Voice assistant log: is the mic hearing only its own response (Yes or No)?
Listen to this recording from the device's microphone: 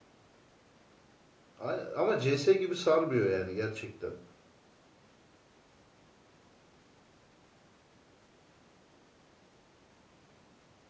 No